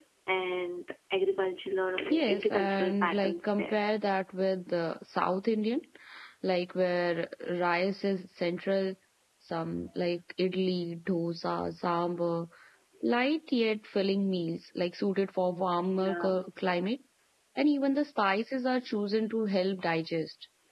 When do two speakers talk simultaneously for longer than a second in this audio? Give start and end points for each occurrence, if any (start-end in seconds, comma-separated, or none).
2.1-3.8